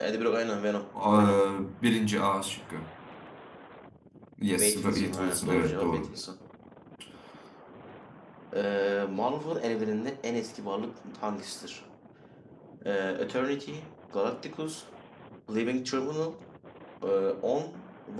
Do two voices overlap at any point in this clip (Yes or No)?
Yes